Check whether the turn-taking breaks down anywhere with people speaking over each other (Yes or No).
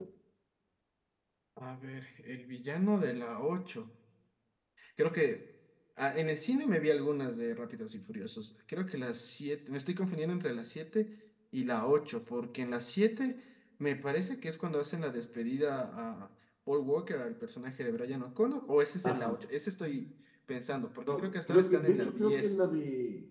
Yes